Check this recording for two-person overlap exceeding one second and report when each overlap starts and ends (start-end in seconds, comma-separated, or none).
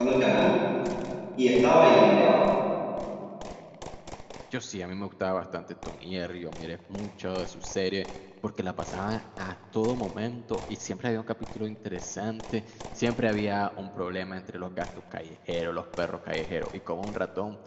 none